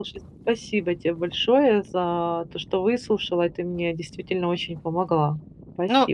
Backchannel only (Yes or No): No